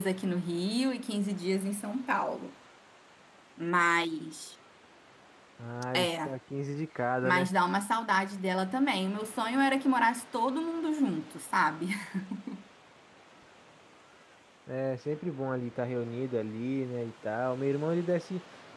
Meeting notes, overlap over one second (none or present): none